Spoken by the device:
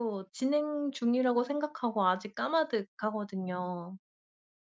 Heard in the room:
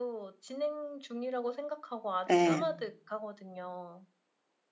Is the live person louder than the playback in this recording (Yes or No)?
Yes